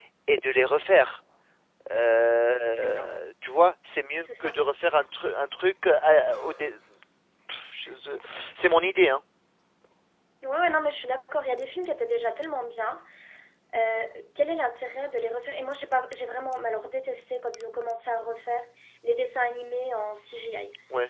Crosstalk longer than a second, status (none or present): none